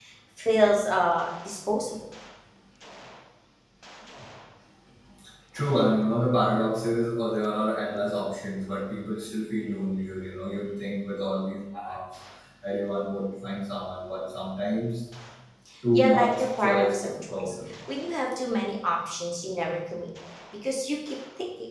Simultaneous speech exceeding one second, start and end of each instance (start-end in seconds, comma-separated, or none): 15.9-17.5